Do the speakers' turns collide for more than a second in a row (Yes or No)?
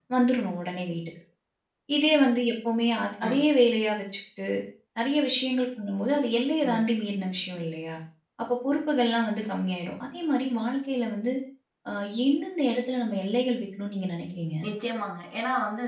No